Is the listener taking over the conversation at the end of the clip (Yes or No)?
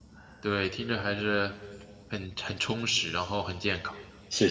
Yes